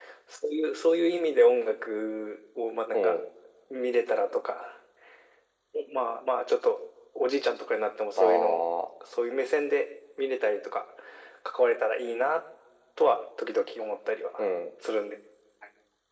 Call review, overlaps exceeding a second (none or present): none